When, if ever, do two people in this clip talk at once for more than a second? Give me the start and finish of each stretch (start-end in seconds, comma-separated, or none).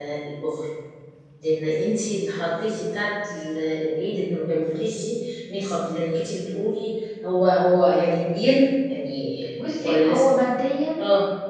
none